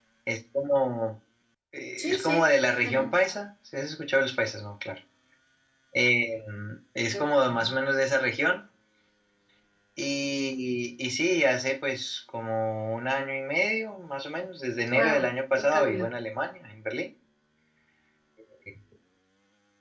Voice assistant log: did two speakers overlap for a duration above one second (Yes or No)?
Yes